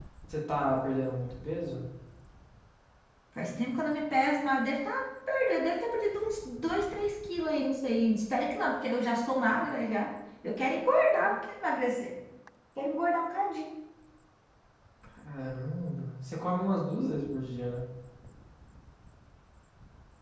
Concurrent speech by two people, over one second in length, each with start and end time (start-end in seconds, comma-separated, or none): none